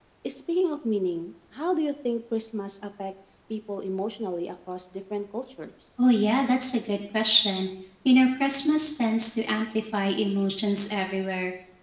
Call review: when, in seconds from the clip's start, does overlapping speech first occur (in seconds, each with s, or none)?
none